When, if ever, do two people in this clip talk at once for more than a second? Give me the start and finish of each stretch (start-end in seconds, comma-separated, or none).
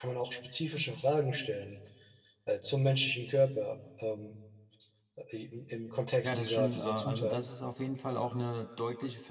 6.2-7.5